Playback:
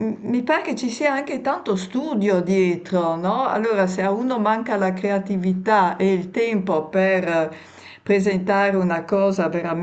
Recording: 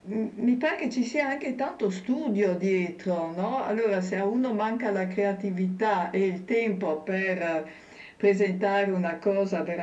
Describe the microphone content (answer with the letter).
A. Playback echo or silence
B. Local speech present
A